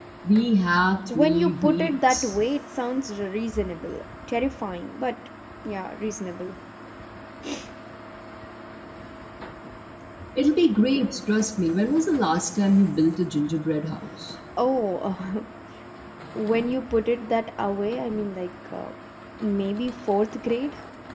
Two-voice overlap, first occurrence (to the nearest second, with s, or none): 1 s